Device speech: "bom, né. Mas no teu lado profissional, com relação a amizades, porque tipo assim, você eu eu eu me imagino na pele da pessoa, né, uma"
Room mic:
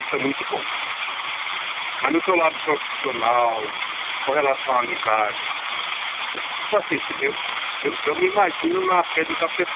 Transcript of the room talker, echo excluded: none

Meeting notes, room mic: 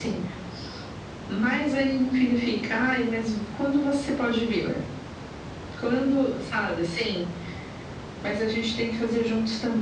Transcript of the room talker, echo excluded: none

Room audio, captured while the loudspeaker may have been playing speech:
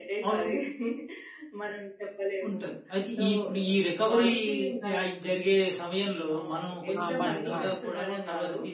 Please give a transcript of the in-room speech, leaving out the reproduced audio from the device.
ఆ! మళ్ళీ. ఆ!

